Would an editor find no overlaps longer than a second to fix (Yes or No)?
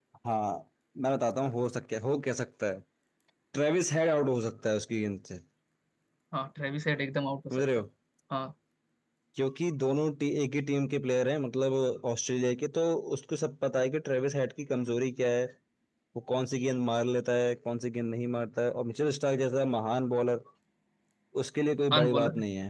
Yes